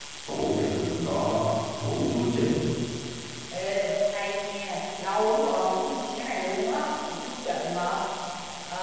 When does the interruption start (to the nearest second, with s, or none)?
none